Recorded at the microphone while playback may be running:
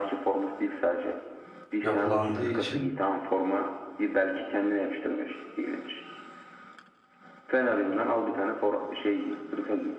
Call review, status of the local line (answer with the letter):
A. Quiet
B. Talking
B